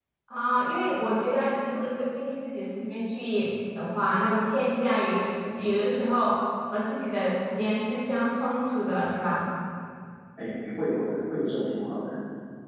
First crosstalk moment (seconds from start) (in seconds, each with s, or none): none